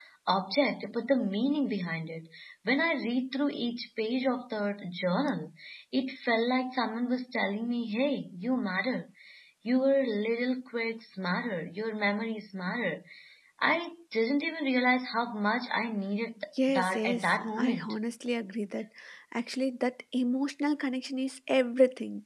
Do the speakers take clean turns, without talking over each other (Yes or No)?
No